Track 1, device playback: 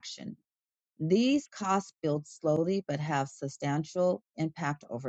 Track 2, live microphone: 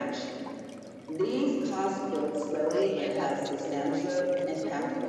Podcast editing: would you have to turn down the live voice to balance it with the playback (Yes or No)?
No